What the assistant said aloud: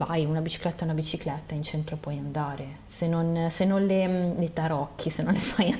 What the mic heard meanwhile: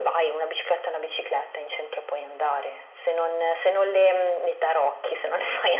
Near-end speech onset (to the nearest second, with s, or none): none